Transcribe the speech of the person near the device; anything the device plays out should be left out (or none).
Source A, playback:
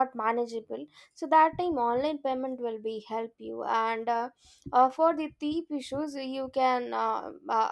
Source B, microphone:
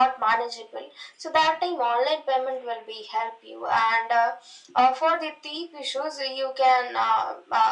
none